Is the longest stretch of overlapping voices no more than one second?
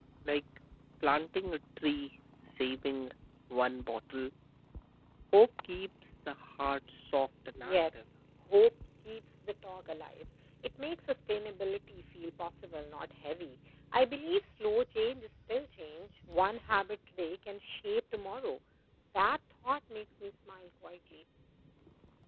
Yes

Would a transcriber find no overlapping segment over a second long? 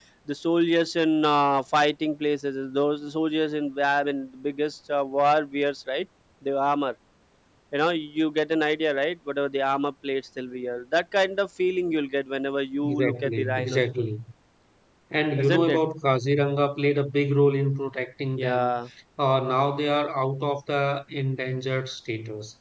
No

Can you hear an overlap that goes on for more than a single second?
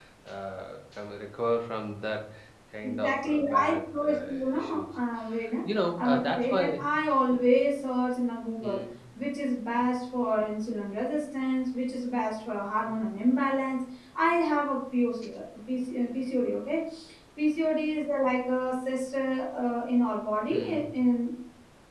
Yes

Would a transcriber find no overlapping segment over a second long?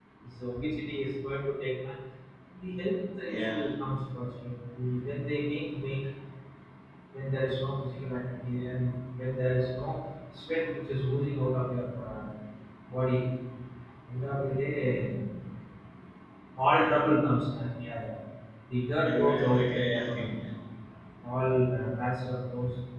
No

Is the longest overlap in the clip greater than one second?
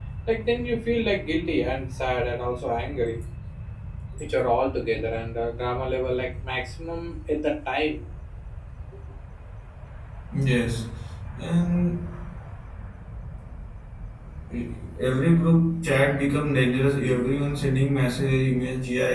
No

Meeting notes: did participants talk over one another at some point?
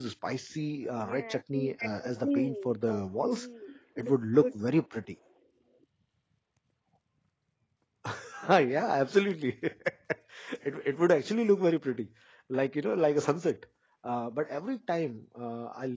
Yes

